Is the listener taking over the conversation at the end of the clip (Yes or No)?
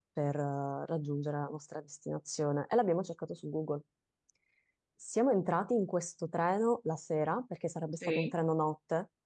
No